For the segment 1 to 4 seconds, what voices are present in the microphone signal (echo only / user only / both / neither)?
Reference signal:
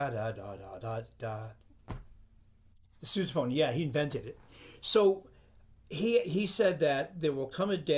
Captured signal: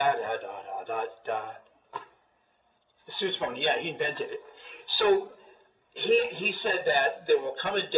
echo only